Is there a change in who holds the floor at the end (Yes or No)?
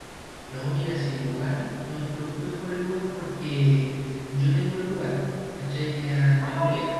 No